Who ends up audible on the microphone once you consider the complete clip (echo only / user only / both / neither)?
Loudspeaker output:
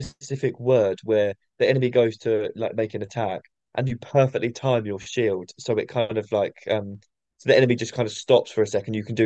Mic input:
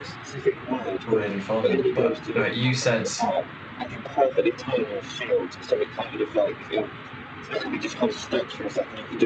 both